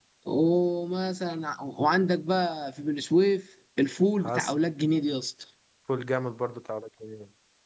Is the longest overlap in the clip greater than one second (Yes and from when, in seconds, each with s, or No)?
No